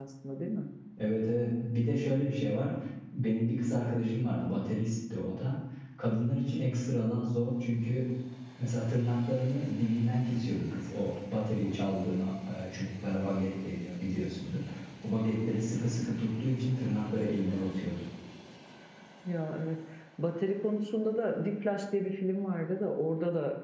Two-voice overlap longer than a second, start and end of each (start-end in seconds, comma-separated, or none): none